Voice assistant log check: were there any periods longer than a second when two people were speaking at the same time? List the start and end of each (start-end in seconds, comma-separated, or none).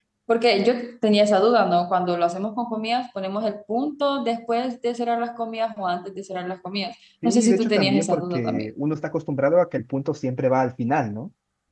7.2-8.7